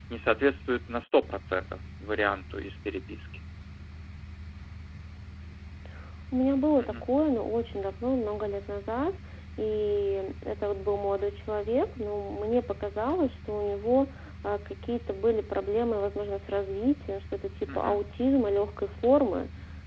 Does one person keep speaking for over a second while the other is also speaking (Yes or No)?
No